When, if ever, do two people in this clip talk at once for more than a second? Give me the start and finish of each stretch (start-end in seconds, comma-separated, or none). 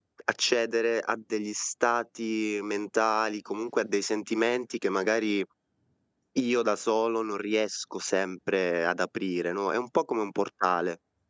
none